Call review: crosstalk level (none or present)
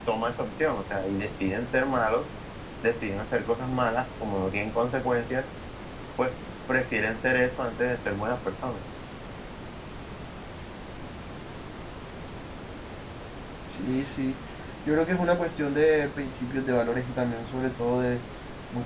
none